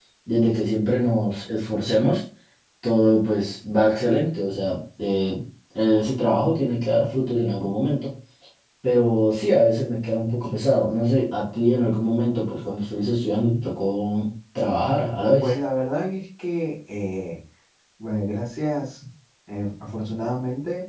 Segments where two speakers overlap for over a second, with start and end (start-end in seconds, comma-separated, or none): none